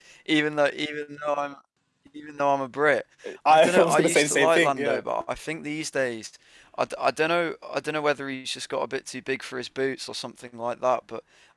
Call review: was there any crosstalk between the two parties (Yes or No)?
Yes